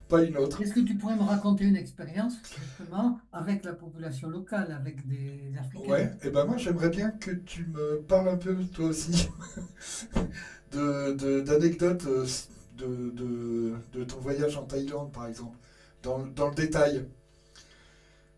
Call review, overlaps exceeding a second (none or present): none